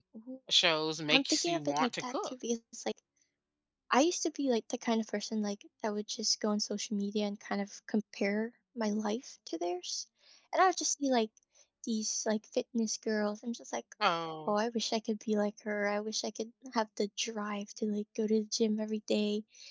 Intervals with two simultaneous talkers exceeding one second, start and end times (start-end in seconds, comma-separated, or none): 1.1-2.3